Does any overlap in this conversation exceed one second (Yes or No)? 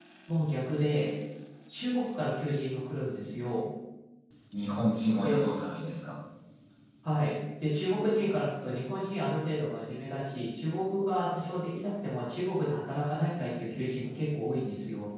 No